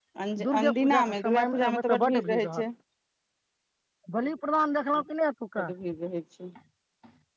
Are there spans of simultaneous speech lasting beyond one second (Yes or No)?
Yes